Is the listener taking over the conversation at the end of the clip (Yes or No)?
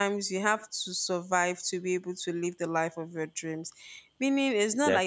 No